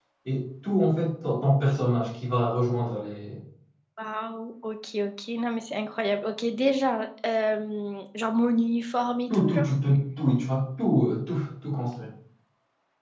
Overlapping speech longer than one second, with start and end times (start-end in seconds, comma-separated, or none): none